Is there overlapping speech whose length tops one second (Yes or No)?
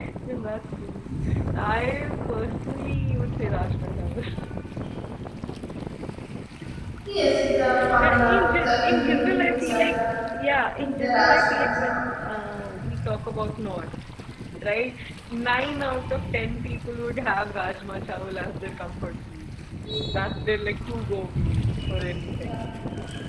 Yes